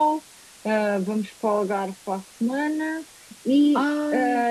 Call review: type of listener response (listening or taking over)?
listening